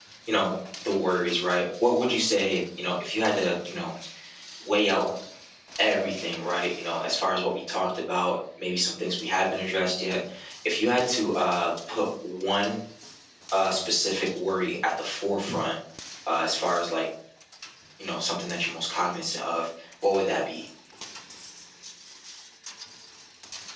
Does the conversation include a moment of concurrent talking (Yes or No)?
No